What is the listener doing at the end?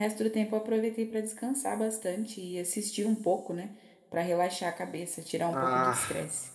taking over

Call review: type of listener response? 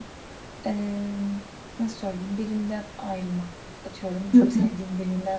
listening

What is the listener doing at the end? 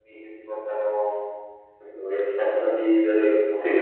taking over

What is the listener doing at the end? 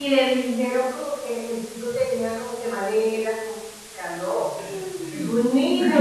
taking over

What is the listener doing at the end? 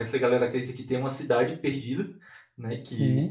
listening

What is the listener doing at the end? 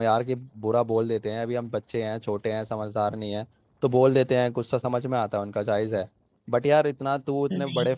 listening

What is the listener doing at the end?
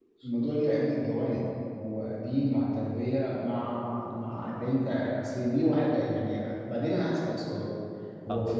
listening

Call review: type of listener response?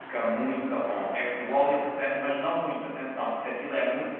listening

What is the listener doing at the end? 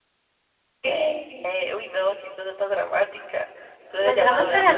taking over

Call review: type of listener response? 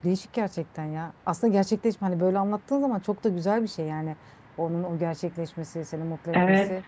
taking over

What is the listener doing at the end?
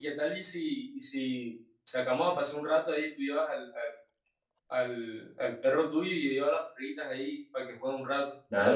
taking over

